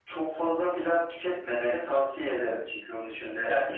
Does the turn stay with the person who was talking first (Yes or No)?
No